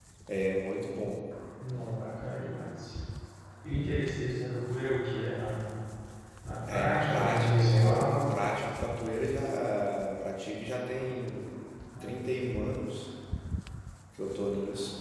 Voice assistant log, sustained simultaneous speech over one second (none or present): present